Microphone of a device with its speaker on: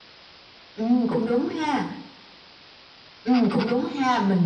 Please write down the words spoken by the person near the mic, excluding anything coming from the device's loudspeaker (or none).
none